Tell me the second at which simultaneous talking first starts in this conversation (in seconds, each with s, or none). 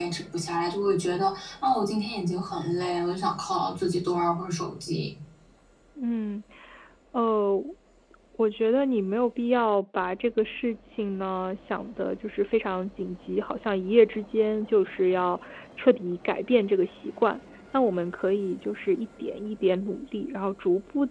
none